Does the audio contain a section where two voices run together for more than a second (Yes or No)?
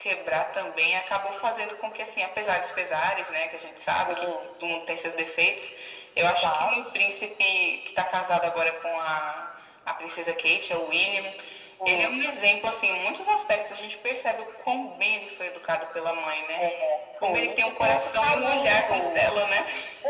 Yes